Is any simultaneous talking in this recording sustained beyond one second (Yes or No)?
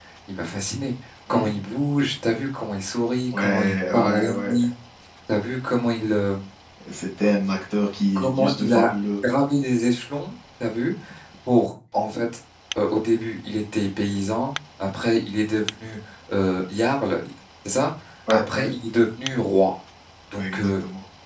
Yes